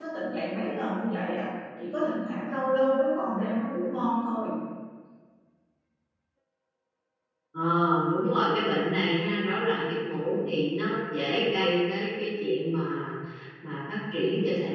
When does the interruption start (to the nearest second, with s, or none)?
none